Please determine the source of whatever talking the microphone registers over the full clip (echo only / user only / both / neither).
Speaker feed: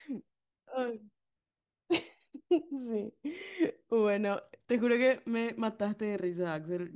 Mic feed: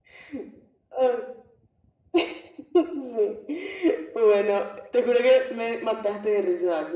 echo only